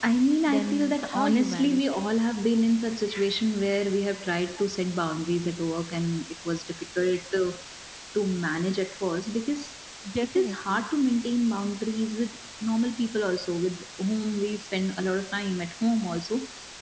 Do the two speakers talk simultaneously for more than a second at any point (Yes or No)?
Yes